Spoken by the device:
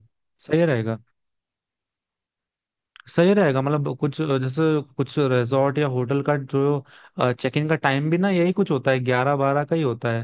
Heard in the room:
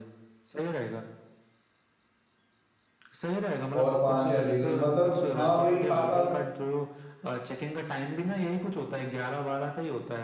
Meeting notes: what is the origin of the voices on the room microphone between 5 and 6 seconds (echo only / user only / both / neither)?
both